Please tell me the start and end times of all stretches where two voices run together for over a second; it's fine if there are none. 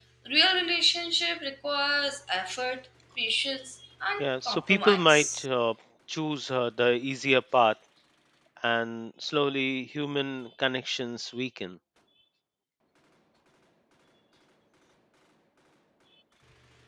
4.2-5.5

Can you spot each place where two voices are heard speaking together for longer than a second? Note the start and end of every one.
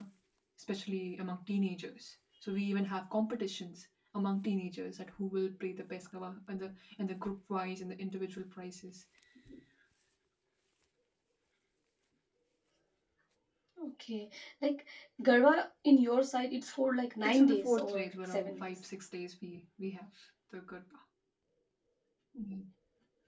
17.2-18.7

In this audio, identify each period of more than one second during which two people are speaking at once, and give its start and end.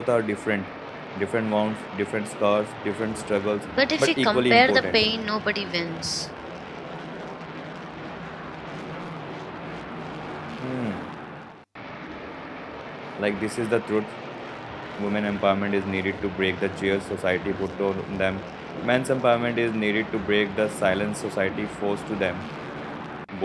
3.8-5.2

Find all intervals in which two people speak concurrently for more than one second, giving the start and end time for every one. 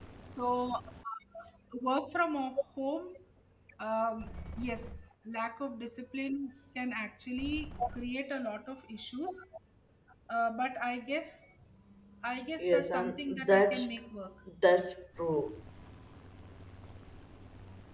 12.6-13.9

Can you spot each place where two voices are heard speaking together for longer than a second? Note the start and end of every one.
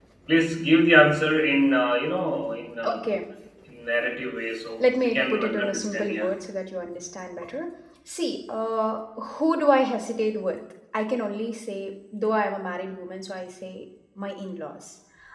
4.8-6.3

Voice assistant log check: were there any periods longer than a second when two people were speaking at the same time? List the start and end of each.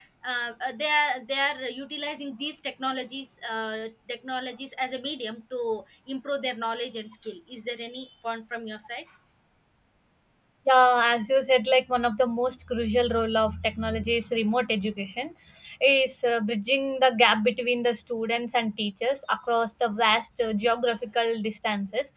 none

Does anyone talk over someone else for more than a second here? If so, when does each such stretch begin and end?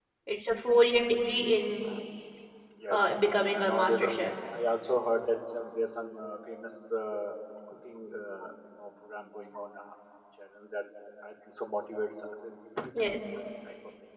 2.9-4.1

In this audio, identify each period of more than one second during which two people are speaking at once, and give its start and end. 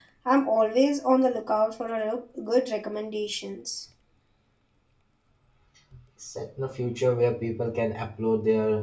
none

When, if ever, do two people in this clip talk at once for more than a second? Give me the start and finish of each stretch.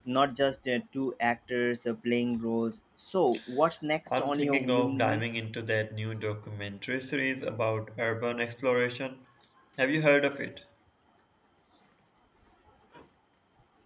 4.1-5.3

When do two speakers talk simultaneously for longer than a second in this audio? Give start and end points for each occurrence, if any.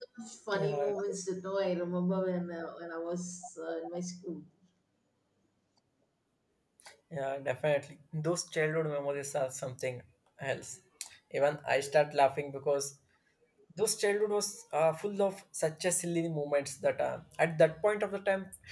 none

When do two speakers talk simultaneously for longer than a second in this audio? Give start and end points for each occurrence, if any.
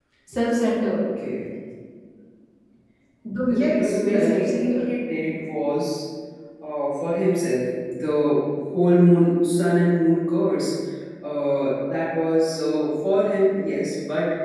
3.5-4.9

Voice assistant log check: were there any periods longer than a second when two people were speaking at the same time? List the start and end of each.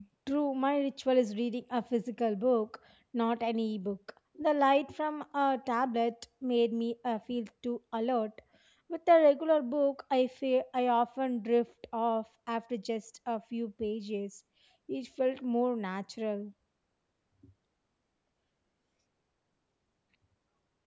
none

